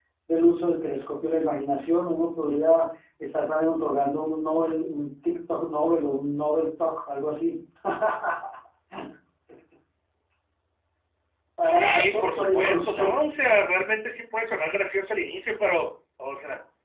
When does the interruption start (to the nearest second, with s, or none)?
12 s